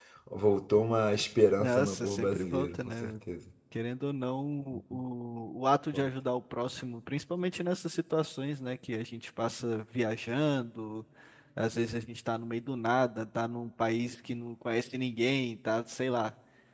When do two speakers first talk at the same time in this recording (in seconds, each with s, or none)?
1.6 s